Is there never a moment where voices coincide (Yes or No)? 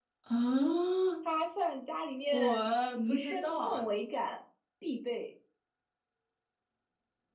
No